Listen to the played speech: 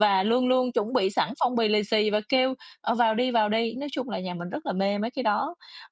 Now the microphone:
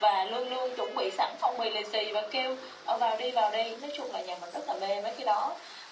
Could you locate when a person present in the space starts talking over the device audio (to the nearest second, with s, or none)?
none